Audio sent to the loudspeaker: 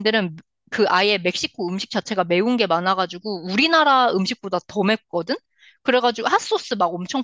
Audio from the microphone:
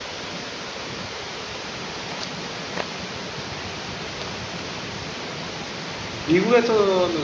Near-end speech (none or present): present